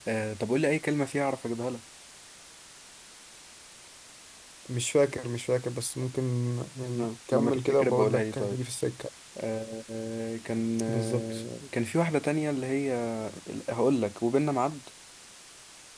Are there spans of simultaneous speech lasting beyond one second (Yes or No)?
Yes